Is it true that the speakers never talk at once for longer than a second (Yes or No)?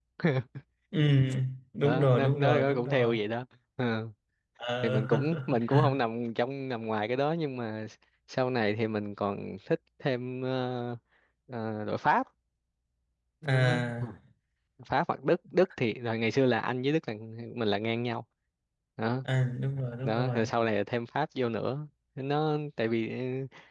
No